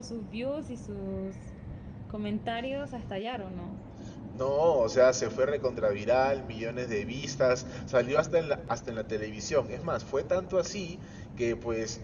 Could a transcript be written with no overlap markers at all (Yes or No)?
Yes